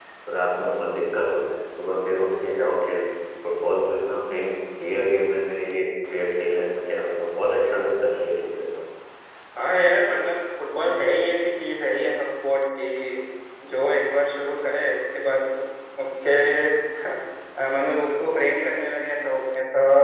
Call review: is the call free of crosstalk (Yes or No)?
Yes